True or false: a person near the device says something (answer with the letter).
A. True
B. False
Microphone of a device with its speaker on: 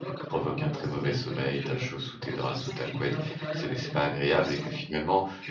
A